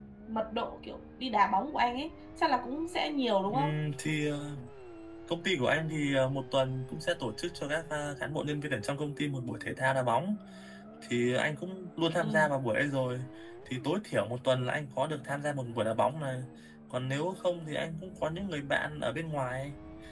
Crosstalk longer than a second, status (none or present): none